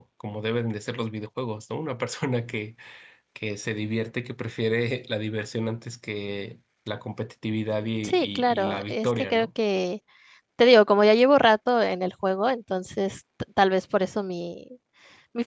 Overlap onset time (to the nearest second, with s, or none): 8 s